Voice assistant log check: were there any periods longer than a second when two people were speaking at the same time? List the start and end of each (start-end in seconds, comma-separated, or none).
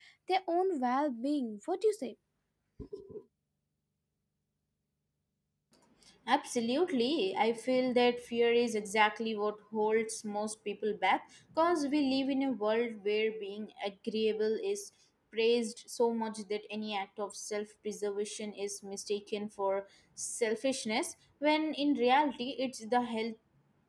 none